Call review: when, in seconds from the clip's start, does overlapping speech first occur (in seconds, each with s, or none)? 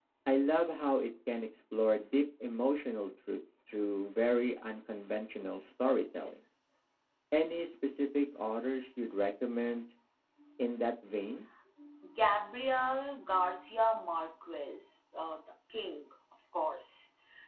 none